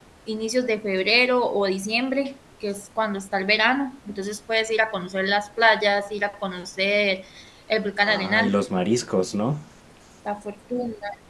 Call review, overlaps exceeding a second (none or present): none